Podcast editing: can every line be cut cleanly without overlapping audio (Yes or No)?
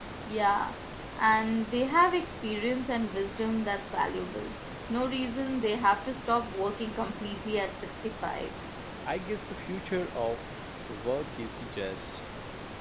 Yes